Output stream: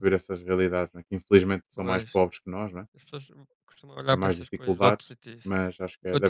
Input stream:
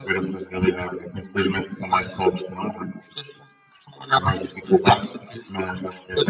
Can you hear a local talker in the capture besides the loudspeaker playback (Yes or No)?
No